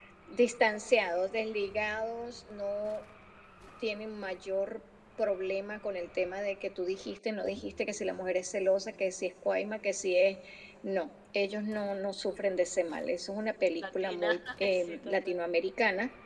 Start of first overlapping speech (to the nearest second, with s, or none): 14 s